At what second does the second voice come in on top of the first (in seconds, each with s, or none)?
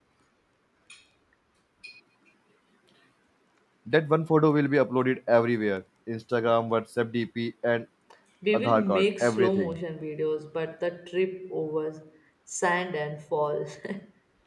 8.5 s